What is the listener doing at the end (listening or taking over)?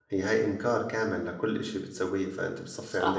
taking over